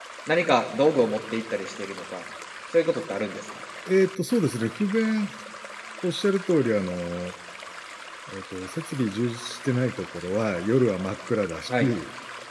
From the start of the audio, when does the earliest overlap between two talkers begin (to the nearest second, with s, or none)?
none